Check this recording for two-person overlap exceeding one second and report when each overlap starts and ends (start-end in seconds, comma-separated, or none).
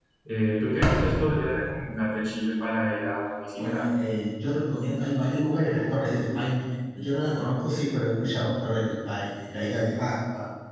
none